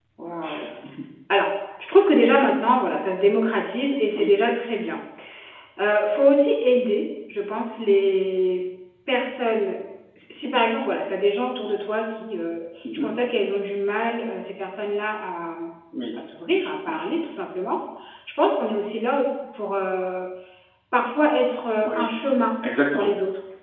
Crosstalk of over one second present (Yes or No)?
No